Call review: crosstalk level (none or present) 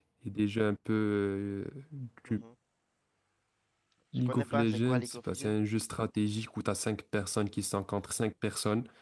present